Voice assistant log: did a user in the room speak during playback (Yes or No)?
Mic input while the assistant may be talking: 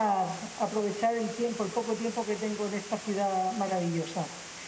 No